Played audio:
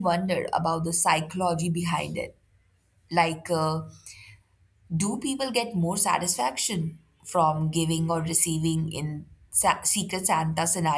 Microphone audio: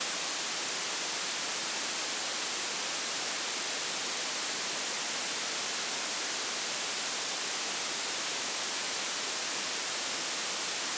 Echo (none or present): none